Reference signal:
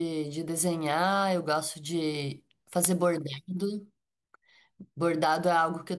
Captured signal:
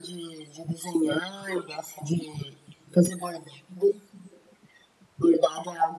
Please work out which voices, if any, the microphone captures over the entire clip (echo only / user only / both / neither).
echo only